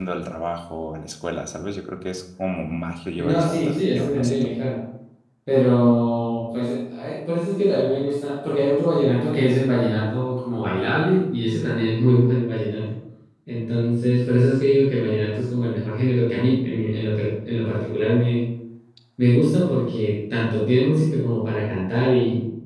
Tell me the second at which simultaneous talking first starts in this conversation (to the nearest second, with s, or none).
3 s